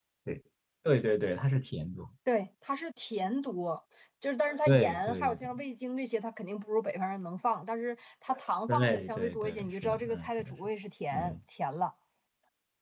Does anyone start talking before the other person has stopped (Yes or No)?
Yes